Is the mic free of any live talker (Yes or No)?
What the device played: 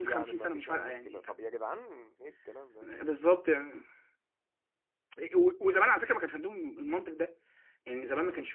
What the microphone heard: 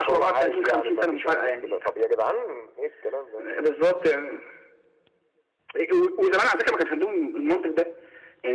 Yes